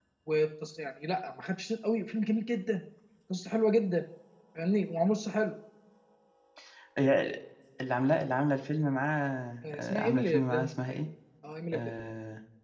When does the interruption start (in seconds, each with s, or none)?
9.6 s